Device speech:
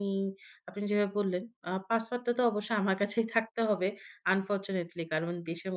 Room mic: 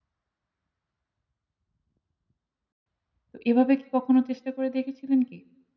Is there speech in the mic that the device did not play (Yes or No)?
Yes